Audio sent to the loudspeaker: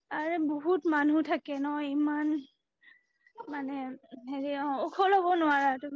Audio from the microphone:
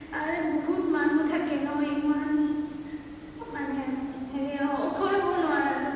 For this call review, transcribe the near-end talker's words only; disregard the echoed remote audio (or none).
none